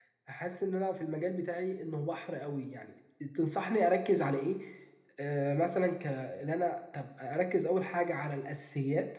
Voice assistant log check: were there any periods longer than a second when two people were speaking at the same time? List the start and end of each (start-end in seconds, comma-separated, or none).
none